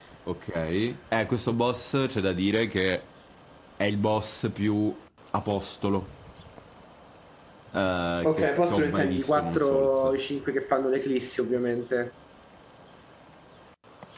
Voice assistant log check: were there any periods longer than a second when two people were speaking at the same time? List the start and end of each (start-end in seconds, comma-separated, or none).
8.2-10.1